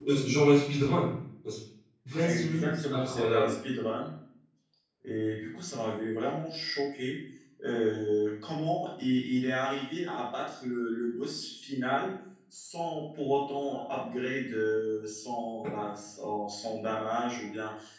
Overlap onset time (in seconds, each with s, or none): 2.2 s